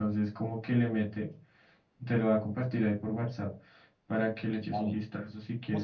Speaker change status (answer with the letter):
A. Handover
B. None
A